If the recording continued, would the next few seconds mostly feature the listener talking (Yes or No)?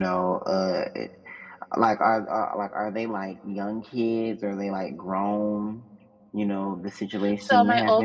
Yes